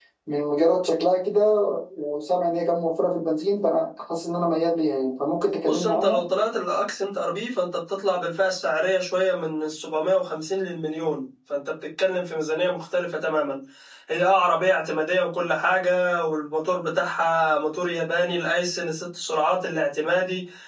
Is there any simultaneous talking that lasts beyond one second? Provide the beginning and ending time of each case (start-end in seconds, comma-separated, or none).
none